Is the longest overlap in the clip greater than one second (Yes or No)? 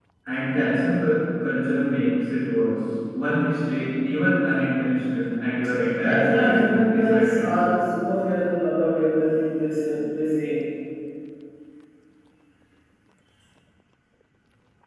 Yes